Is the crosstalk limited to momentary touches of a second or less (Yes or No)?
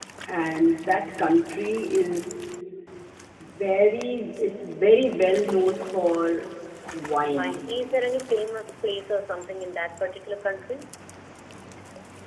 Yes